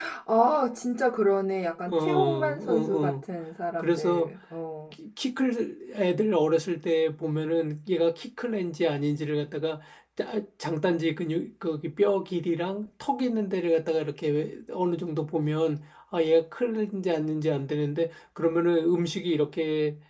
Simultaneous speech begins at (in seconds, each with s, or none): 1.9 s